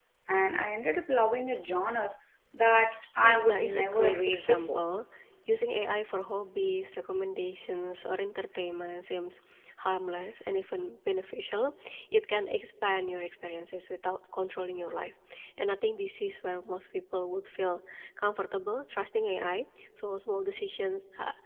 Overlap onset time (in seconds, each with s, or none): 3.2 s